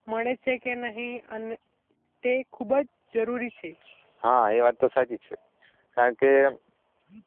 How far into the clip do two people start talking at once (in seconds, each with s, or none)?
none